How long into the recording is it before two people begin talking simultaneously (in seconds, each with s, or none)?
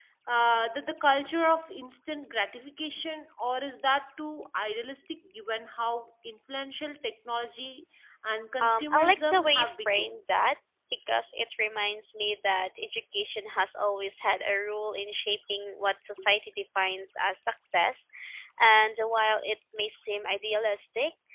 8.6 s